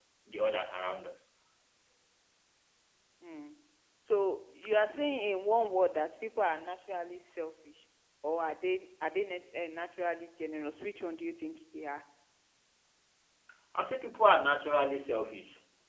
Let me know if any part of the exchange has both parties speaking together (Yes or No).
No